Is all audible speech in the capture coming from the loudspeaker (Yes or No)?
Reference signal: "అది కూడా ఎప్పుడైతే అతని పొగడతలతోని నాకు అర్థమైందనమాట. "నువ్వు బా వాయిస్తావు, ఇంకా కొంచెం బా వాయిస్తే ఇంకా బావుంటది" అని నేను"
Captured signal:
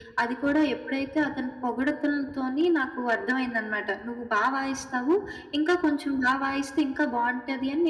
Yes